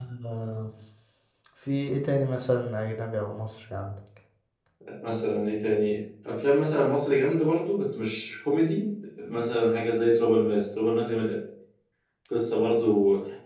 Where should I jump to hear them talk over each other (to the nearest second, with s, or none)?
none